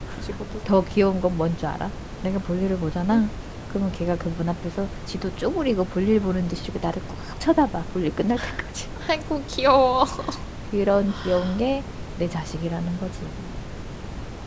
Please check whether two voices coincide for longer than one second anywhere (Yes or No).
No